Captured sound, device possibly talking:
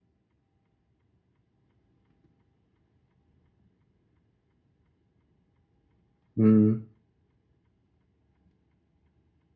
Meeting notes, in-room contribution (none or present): present